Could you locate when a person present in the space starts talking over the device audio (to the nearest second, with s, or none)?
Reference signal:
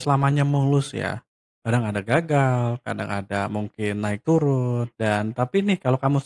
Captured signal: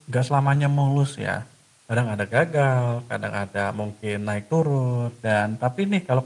none